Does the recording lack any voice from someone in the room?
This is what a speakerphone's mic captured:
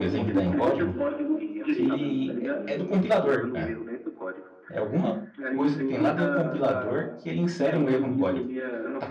No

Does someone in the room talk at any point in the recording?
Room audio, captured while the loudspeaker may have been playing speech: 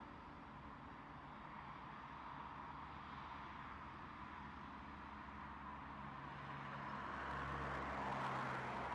No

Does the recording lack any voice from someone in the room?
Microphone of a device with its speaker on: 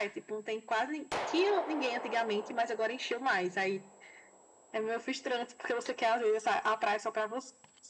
Yes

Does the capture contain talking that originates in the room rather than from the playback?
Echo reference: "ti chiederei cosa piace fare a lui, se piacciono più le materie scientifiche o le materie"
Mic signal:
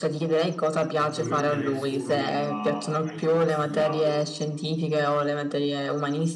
Yes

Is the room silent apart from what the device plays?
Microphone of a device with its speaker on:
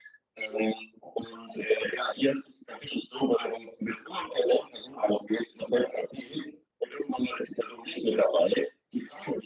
Yes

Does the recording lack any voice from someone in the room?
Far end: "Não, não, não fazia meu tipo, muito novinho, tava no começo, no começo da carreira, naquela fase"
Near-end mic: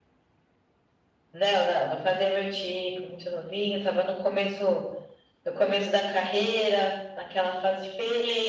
Yes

